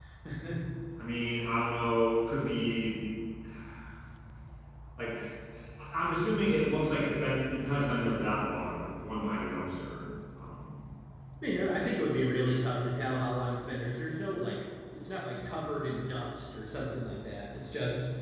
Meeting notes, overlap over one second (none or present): none